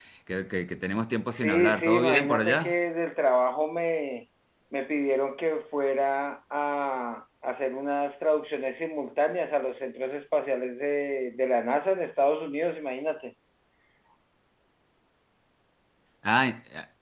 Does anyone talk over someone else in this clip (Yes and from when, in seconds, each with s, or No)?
Yes, from 1.3 s